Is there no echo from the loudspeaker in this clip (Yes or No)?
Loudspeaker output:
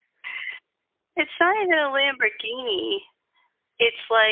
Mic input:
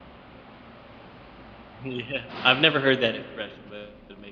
Yes